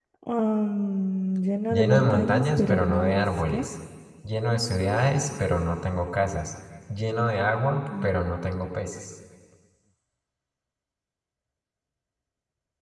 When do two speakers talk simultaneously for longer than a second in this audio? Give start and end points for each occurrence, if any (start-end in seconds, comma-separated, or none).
1.7-3.6